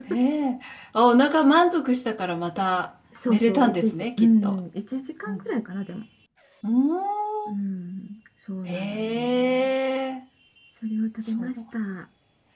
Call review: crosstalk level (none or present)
present